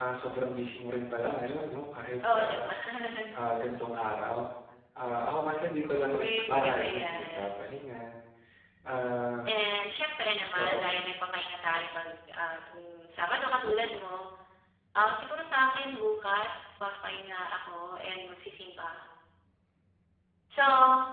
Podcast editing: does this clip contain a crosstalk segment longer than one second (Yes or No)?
Yes